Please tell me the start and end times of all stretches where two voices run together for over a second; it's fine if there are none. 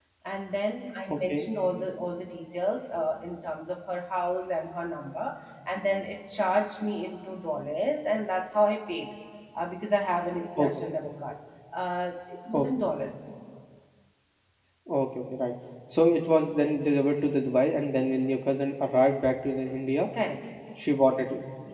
none

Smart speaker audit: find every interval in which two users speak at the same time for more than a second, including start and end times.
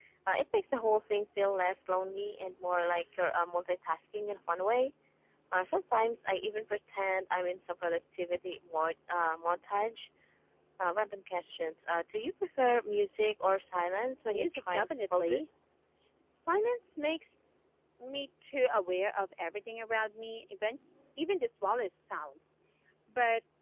14.3-15.5

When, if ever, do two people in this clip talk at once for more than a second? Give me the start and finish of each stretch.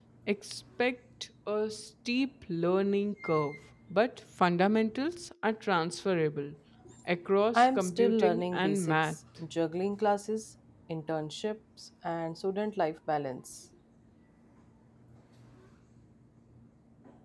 7.5-9.2

